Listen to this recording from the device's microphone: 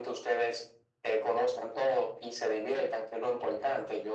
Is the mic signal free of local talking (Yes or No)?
Yes